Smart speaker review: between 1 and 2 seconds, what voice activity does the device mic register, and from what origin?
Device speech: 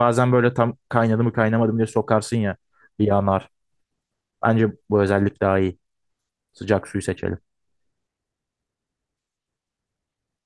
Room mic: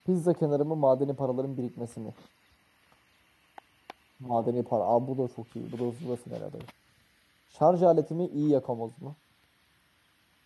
user only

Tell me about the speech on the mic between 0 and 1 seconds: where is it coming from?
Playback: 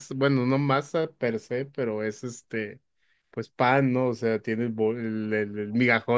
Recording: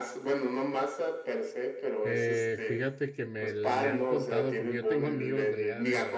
echo only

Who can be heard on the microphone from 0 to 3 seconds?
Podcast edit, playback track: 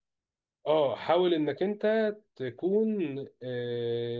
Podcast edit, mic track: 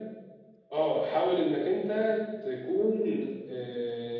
echo only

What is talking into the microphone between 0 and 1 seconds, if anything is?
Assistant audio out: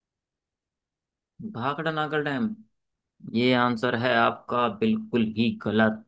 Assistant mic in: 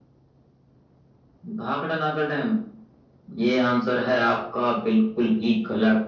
neither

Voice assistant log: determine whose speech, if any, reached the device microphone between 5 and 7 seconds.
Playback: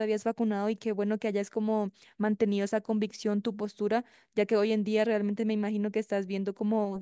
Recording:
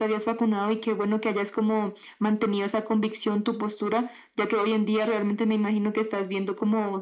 echo only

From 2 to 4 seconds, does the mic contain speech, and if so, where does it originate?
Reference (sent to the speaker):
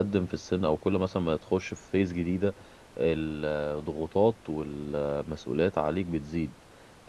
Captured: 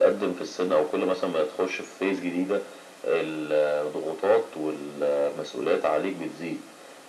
echo only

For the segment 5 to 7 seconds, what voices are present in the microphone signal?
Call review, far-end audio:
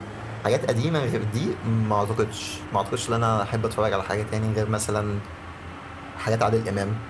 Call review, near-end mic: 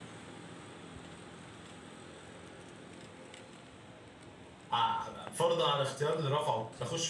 user only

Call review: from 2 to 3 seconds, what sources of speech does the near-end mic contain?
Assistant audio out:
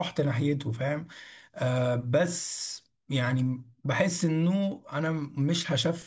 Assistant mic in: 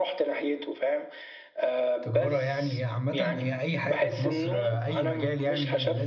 both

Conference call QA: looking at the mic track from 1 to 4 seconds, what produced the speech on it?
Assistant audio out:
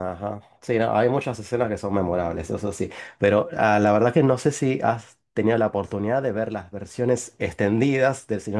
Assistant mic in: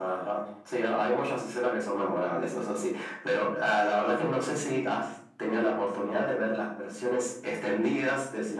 echo only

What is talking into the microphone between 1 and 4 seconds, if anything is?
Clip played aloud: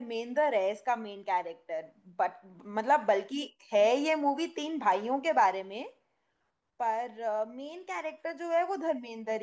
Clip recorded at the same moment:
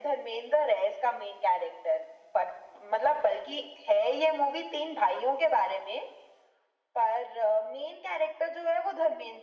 echo only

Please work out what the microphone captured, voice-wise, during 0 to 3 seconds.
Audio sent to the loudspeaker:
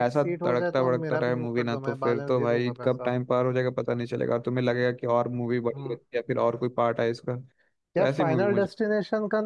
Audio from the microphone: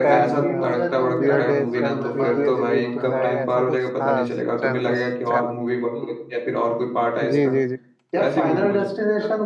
both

